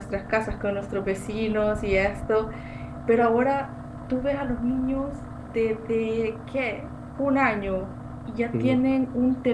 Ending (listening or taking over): listening